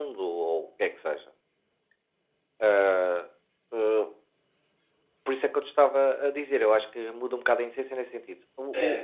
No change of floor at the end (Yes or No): Yes